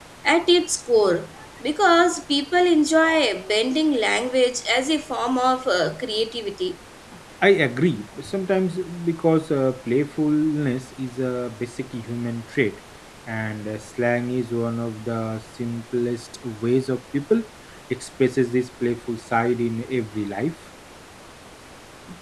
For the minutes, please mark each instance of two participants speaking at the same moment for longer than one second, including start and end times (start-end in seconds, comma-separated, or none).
none